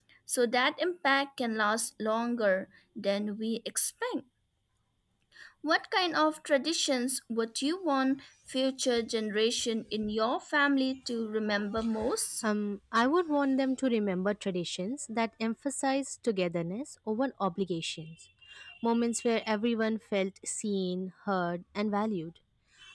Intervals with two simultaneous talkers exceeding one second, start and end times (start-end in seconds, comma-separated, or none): none